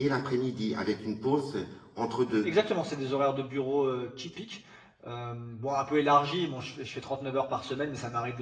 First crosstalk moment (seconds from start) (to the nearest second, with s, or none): none